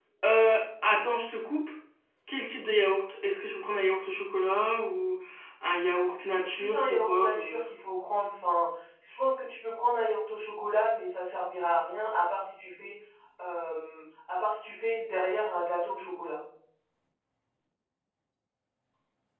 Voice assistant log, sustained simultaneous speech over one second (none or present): present